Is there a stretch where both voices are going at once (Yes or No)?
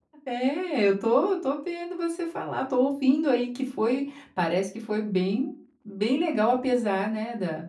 No